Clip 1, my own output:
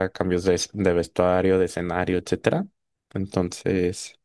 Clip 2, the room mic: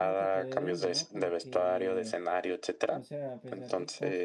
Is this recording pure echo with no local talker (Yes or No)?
No